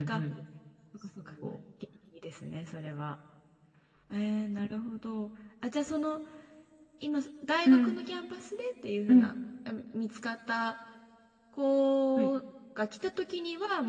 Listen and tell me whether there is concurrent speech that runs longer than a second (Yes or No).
No